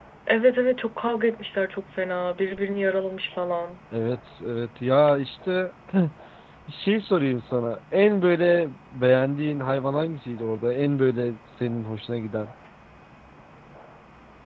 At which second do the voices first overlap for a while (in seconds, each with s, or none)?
none